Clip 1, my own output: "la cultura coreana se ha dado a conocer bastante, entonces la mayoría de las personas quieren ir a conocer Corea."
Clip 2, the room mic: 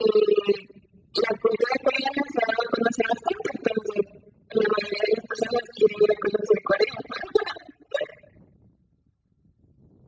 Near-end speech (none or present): none